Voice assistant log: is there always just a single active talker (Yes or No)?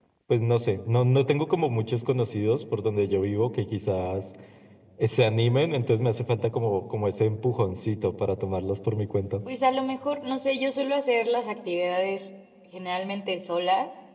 Yes